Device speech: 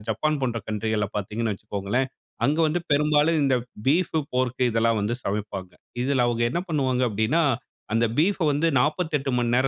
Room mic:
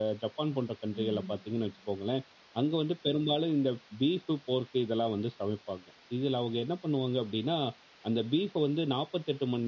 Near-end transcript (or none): ம், ம்.